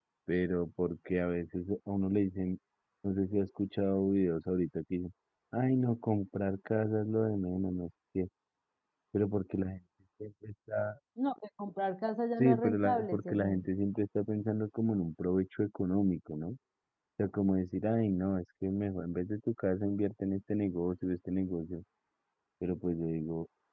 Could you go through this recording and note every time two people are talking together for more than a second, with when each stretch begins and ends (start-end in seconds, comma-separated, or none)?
12.4-13.7